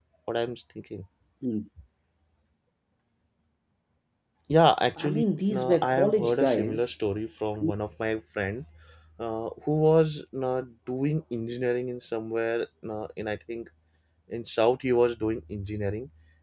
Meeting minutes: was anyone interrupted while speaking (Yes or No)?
Yes